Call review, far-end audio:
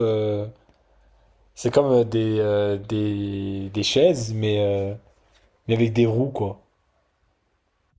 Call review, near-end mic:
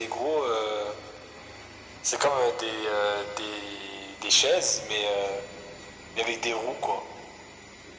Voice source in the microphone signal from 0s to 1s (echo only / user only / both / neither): echo only